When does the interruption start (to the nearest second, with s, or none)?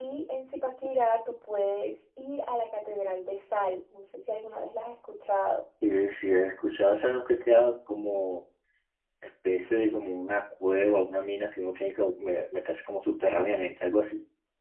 none